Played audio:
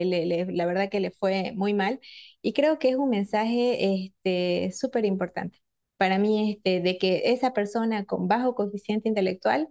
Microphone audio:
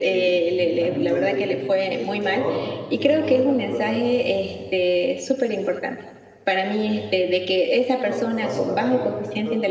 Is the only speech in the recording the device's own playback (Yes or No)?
No